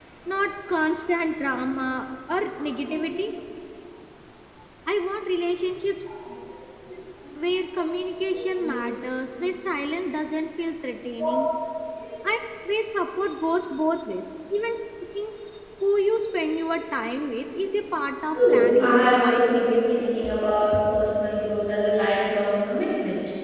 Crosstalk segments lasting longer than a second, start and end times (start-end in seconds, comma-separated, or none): 18.3-20.0